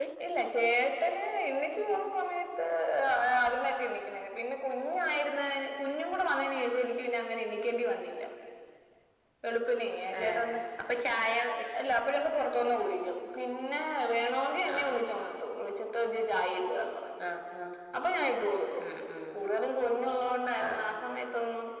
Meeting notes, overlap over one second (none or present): none